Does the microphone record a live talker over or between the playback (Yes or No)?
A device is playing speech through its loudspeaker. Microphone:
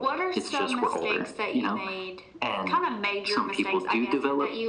No